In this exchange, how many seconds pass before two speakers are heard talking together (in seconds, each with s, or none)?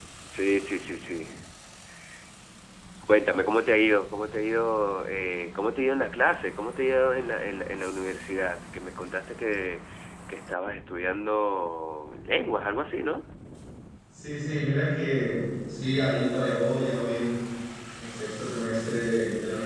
none